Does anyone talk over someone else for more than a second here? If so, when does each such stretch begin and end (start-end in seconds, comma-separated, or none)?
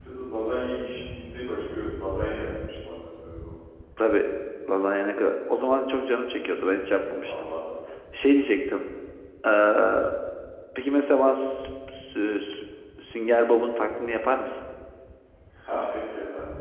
none